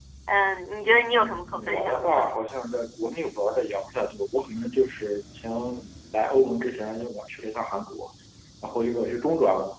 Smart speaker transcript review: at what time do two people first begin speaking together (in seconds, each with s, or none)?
0.8 s